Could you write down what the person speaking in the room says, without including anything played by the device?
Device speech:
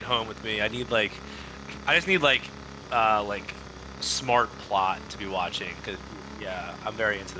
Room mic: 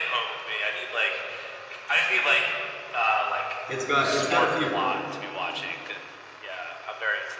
It's got it's got a few.

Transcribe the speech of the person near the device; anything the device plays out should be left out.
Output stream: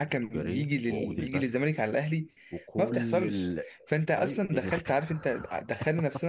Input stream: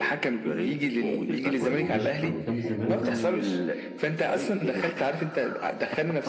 و- ومشي كان قدام الزمالك برضه

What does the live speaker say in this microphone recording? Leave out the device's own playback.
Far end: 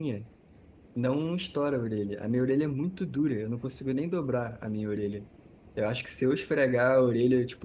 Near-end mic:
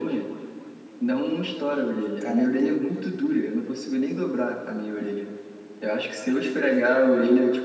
karatê,

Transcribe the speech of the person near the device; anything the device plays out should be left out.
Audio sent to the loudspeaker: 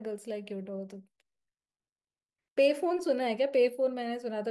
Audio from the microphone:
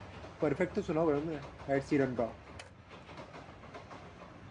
परफेक्ट तो सुना होगा ना एड सीरन का

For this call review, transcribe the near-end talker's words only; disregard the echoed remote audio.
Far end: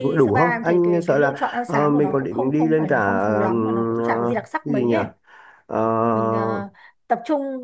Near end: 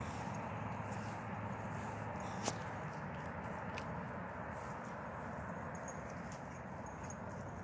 none

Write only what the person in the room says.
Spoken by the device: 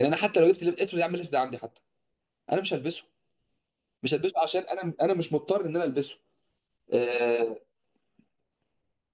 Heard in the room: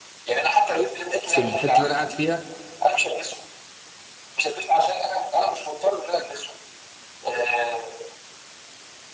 في الحته اللي انا قاعد فيها

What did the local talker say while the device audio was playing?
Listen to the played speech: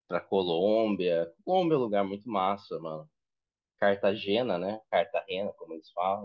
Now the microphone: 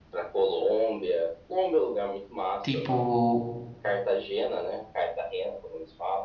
Tipo.

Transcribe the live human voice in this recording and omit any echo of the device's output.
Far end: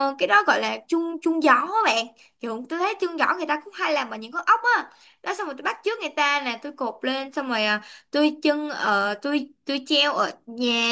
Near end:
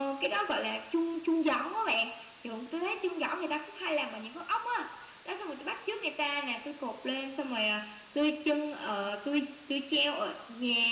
none

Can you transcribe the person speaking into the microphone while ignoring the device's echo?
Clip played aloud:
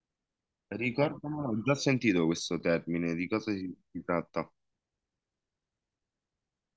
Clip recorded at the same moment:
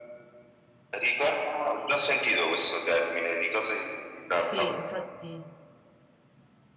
sì, infatti.

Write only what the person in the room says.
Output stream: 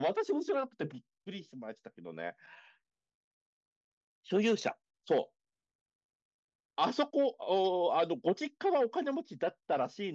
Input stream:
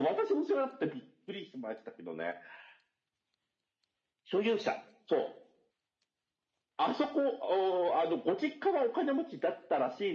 none

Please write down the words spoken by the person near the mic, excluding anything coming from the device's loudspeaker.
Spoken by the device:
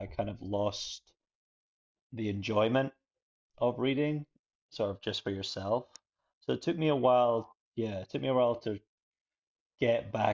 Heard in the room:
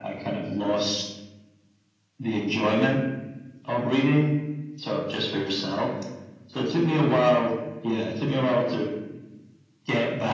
none

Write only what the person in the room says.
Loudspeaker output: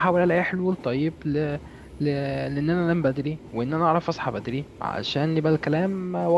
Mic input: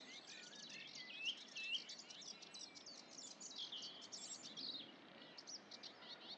none

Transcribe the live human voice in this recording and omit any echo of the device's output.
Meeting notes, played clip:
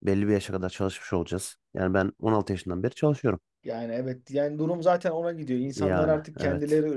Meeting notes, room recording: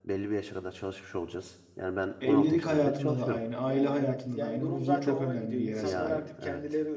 Evlilik hayatında da aynı, aile hayatında da aynı. Huzur çok önemli bir yere sahip.

